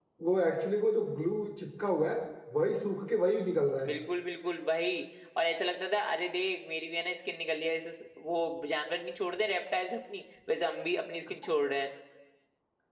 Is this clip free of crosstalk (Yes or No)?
Yes